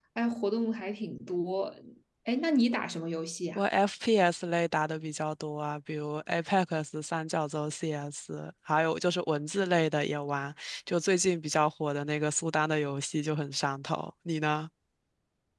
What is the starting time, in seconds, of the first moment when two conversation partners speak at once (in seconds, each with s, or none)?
none